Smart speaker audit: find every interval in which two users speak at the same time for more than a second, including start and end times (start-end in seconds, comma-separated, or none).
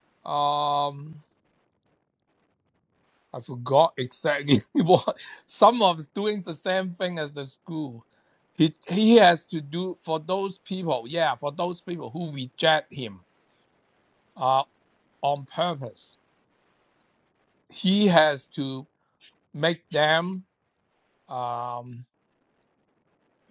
none